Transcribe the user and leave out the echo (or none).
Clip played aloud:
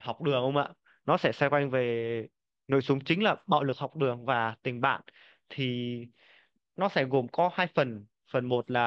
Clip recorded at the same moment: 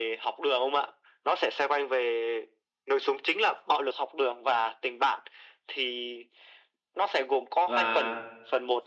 và